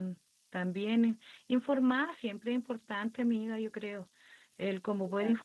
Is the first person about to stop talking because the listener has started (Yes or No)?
No